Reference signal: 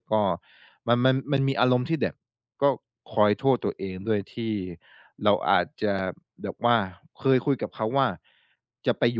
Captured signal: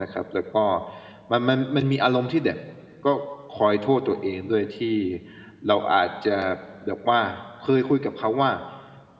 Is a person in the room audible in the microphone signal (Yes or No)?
No